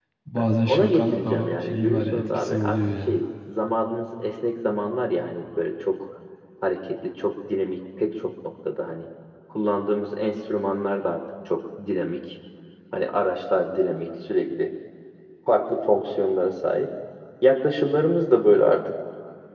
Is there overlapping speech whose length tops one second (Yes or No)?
Yes